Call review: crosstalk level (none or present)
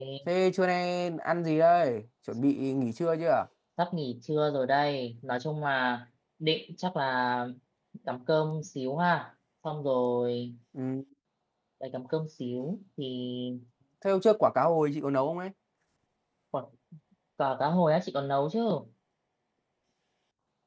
none